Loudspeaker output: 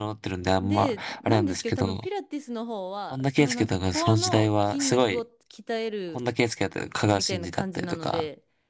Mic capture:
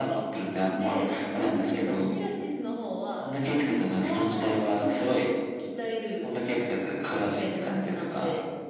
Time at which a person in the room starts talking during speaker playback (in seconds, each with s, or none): none